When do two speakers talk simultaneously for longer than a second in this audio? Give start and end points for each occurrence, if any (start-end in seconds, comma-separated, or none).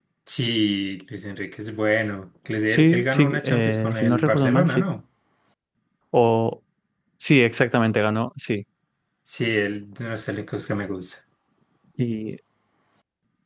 2.6-4.8